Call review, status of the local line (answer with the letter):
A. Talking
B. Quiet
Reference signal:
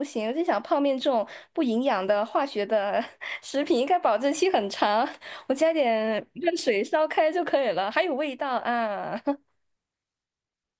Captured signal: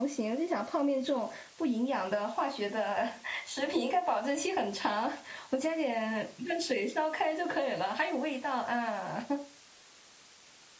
B